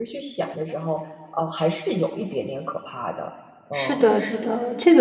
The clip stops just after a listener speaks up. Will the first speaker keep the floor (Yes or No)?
No